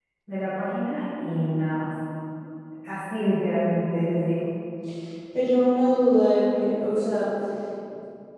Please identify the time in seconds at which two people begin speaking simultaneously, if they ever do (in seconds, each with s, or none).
none